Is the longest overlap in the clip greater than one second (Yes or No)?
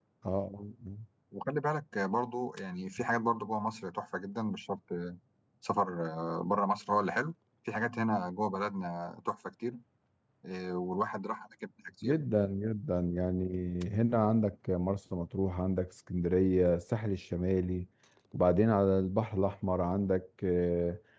No